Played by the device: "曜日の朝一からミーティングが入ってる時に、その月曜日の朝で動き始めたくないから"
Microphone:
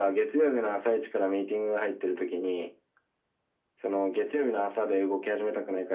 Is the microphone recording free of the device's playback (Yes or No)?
No